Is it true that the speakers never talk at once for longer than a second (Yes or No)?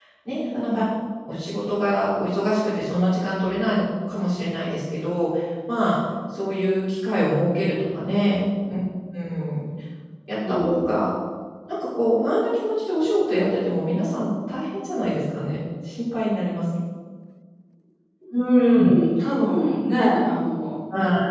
Yes